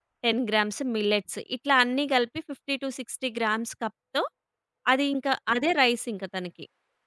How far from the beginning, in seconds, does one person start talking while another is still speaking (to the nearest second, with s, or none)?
none